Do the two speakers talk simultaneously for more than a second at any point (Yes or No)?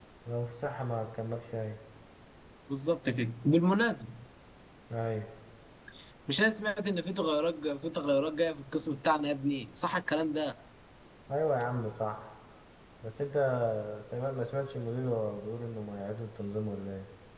No